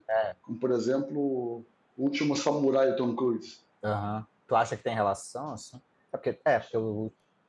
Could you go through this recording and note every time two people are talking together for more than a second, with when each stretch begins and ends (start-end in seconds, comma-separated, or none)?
none